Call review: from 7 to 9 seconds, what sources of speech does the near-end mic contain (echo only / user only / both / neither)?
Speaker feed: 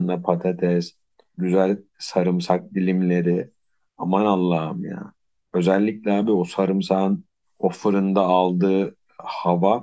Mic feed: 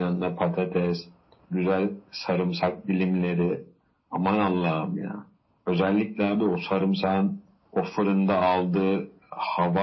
echo only